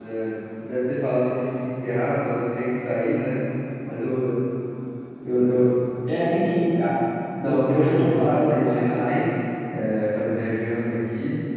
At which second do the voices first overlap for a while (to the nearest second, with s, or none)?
7 s